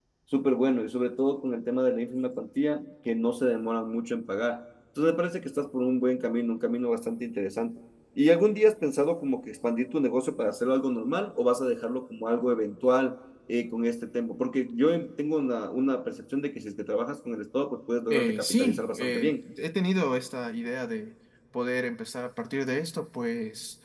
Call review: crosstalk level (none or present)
present